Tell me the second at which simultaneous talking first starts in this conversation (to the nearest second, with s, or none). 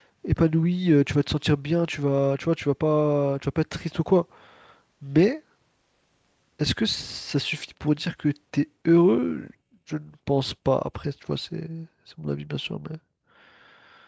none